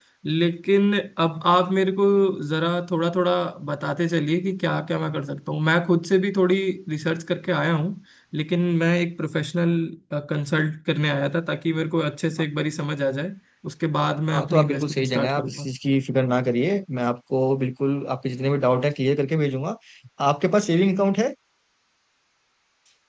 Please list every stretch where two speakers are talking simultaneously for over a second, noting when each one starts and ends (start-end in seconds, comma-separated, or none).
14.3-15.7